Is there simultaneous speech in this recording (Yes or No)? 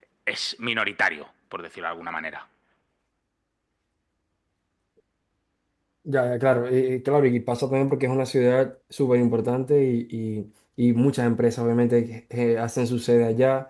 No